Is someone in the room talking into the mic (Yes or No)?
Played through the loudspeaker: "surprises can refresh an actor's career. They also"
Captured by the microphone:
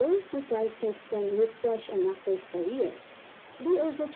No